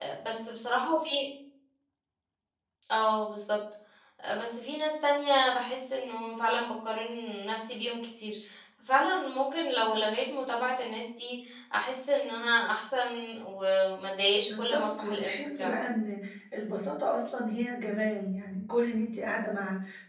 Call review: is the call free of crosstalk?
No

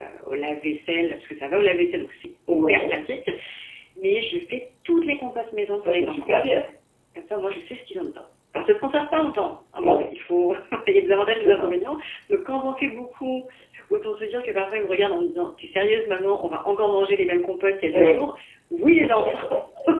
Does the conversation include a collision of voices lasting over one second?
No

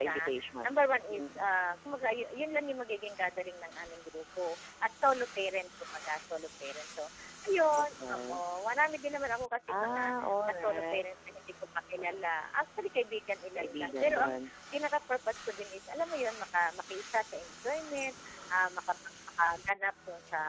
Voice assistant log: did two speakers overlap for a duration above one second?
Yes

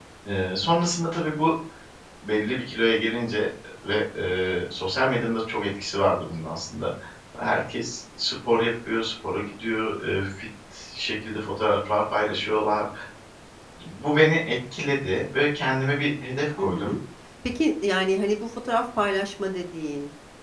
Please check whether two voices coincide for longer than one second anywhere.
No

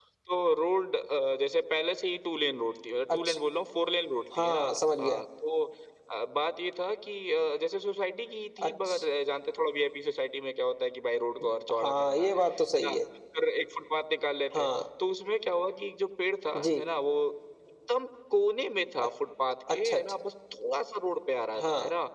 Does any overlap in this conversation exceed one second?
Yes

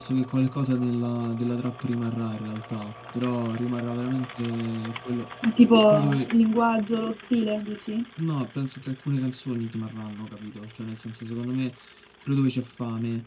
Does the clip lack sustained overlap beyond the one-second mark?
Yes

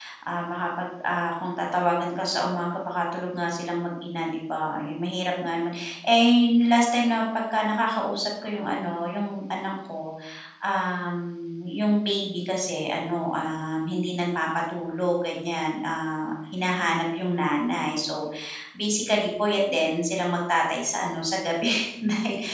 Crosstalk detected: No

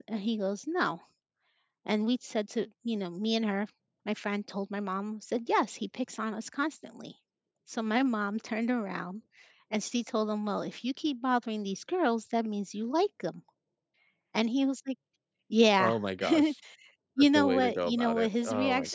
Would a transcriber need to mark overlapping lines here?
Yes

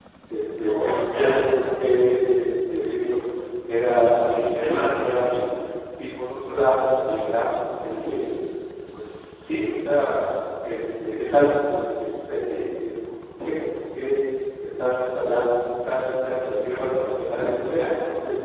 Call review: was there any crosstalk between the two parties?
Yes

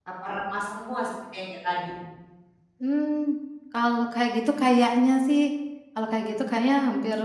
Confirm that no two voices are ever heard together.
Yes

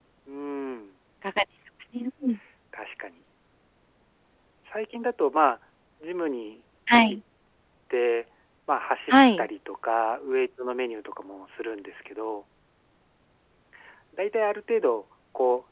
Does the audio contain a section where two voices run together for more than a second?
No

